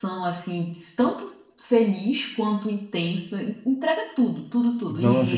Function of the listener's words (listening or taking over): taking over